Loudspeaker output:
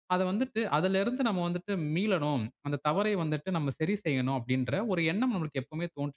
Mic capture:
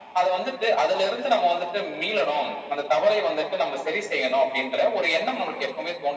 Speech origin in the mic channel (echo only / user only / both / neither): echo only